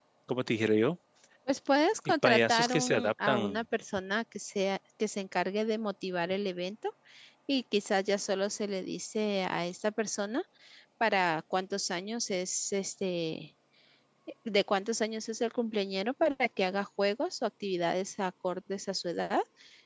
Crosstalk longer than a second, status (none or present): present